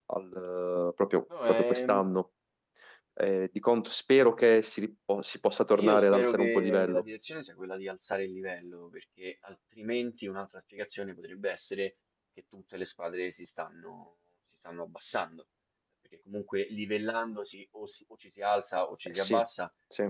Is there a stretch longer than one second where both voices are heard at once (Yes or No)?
Yes